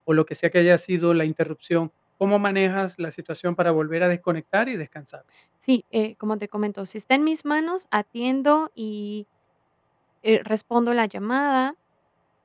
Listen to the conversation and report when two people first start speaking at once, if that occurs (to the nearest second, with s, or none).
none